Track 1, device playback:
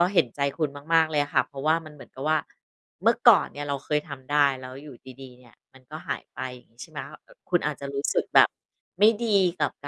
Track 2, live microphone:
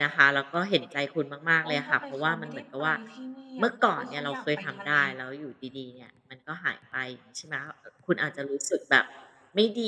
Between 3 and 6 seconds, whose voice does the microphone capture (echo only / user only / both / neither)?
both